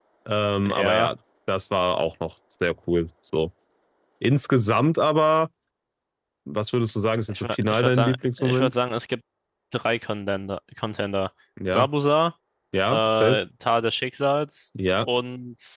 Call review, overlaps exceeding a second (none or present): present